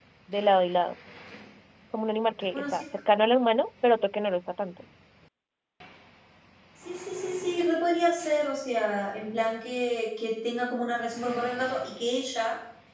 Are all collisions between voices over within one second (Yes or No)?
Yes